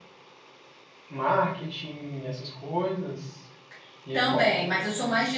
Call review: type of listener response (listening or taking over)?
taking over